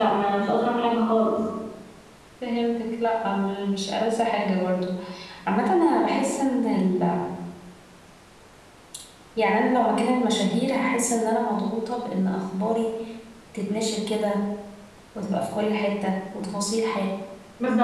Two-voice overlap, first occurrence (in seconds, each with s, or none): none